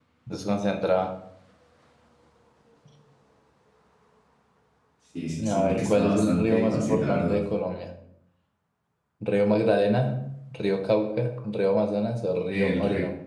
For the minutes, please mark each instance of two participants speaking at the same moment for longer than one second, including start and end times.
5.5-7.4

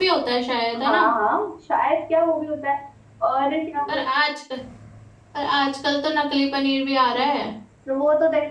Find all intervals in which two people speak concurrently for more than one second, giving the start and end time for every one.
none

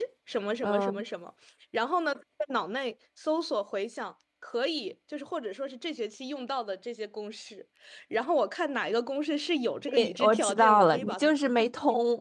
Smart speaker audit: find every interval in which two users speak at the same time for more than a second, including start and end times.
9.9-11.3

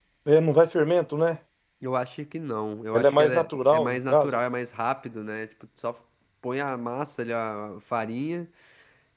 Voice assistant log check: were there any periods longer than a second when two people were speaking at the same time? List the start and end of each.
2.9-4.4

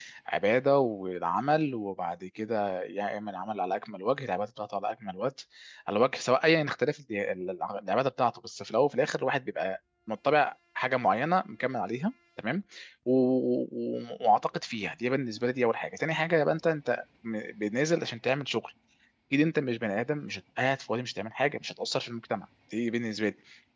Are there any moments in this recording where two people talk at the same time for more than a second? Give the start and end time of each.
none

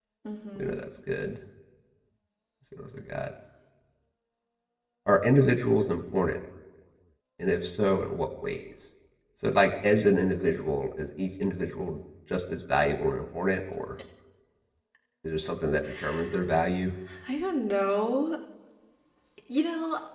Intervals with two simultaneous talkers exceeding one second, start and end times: none

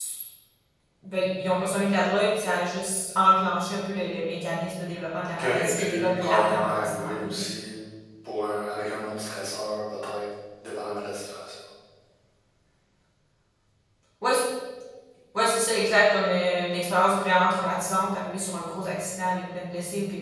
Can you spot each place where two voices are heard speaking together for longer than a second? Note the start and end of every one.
5.4-7.3

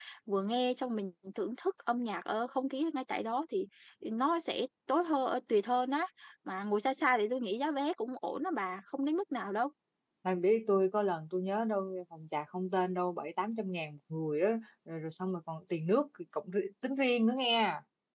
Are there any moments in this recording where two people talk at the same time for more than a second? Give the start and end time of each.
none

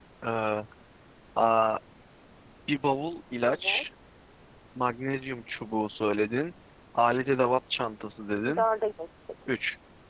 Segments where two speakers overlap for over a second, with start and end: none

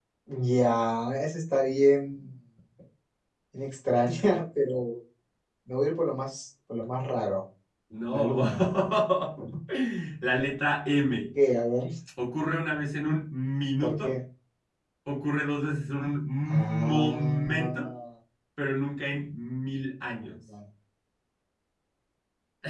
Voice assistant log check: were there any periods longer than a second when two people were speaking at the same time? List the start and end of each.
16.5-17.9

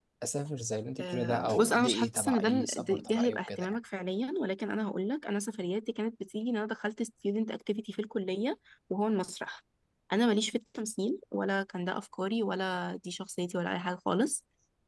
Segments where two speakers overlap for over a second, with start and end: 1.0-3.8

